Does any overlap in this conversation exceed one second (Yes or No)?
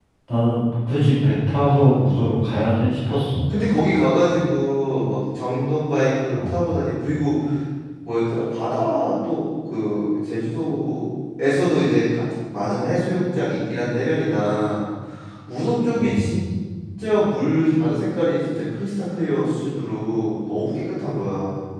No